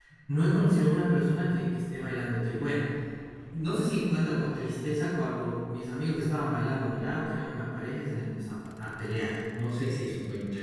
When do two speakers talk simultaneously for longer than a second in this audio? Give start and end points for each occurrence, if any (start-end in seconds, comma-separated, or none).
none